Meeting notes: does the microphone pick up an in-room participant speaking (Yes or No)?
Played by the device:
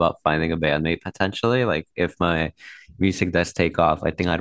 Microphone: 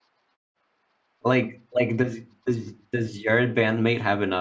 Yes